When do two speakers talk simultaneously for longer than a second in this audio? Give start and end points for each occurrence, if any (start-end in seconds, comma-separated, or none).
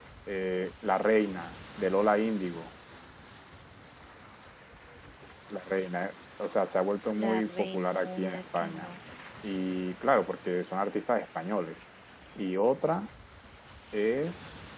7.2-8.9